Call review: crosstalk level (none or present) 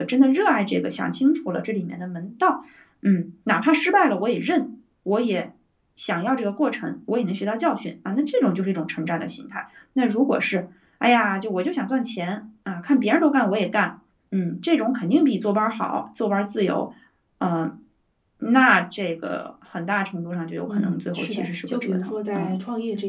present